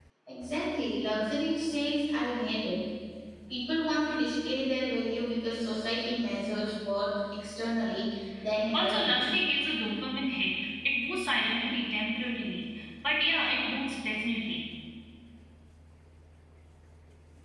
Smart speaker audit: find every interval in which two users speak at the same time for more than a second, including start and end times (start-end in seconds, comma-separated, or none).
none